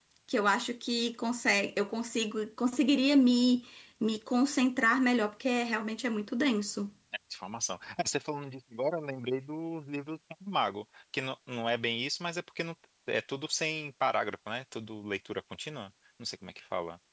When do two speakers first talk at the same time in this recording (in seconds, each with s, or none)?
none